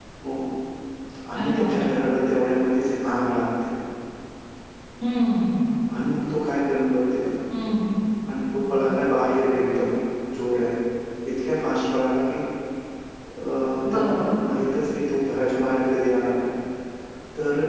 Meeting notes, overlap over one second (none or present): none